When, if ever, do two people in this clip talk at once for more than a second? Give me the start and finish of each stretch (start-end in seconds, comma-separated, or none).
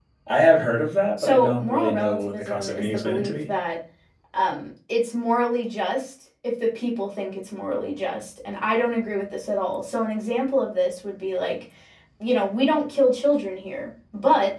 1.2-3.3